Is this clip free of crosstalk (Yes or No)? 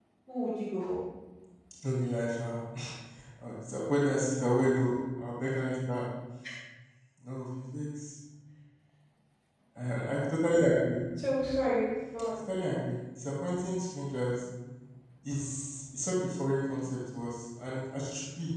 Yes